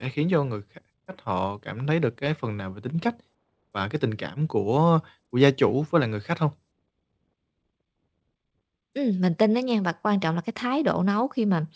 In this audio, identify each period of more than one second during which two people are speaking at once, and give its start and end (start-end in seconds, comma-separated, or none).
none